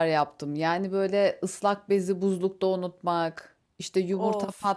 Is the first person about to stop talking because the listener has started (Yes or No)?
No